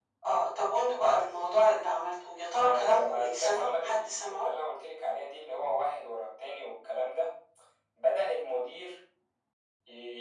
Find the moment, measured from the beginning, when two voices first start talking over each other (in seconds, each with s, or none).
2.6 s